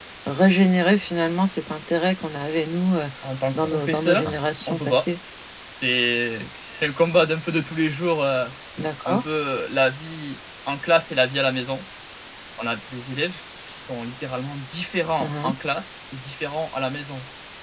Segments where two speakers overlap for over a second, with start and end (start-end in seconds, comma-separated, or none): 3.6-5.0